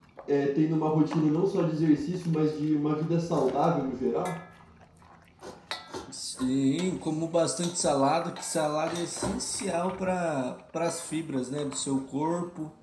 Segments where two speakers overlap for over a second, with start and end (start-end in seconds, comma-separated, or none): none